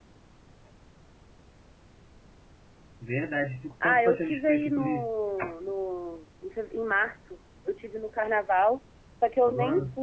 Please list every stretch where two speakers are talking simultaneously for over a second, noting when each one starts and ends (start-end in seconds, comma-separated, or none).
3.8-5.1